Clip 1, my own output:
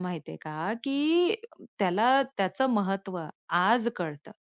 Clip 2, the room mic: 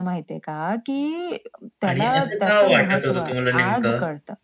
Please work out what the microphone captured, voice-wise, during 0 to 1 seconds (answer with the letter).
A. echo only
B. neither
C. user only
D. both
A